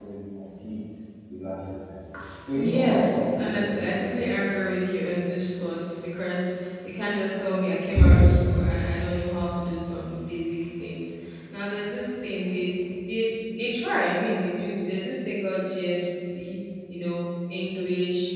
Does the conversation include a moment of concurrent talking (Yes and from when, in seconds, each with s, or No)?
Yes, from 2.5 s